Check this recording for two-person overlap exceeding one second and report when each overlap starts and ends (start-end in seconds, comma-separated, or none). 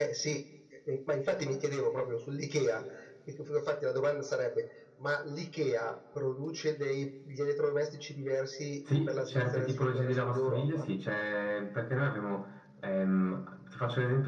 8.9-10.9